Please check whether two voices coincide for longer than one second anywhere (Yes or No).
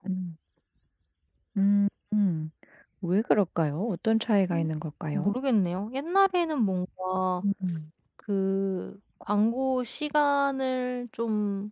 No